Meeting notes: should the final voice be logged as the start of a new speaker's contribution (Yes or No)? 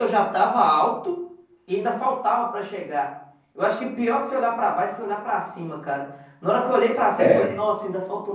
No